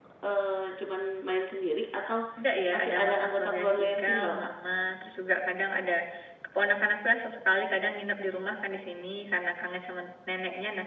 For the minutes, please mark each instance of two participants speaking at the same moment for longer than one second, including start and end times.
2.7-4.5

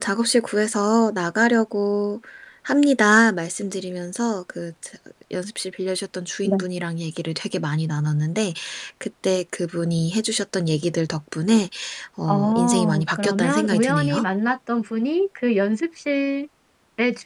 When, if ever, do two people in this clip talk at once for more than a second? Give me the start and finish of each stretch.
12.3-14.2

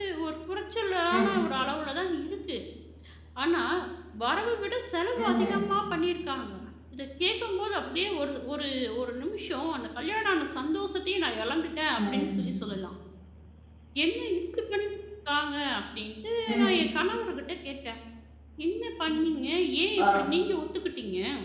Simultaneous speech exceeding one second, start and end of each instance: none

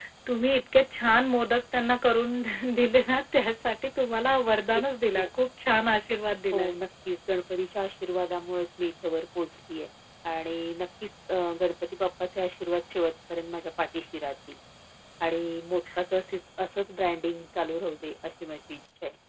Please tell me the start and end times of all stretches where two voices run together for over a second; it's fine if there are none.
none

